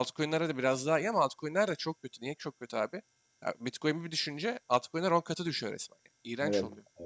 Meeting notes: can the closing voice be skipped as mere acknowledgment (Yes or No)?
No